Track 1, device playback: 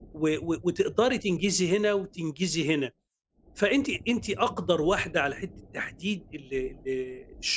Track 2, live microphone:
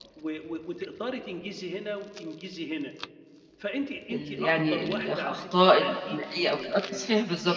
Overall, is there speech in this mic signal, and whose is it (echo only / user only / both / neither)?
both